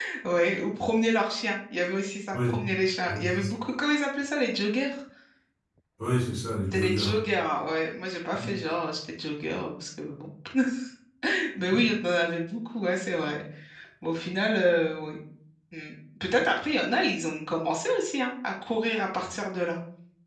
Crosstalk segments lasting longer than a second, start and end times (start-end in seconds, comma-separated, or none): none